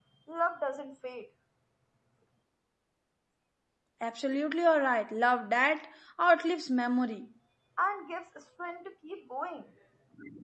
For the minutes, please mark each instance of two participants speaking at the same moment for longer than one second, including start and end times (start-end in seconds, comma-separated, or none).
none